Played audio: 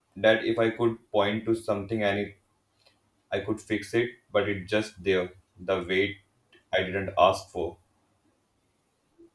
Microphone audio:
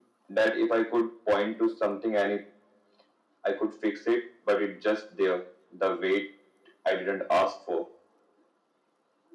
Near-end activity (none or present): none